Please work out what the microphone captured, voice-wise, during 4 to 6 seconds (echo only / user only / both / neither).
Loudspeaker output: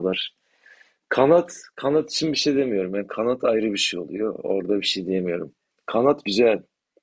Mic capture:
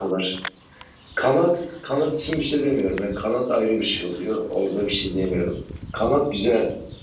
echo only